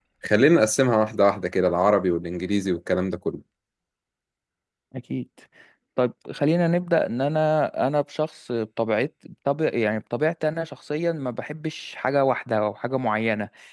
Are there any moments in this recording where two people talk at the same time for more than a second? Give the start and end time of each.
none

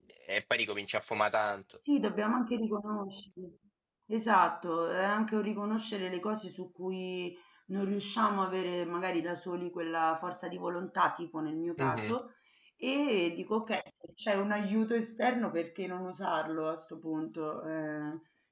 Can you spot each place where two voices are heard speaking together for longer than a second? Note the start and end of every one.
none

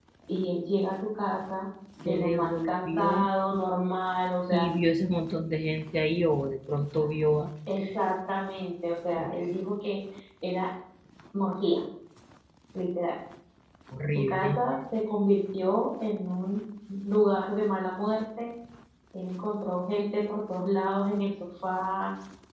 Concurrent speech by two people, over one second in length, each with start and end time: 2.0-3.3

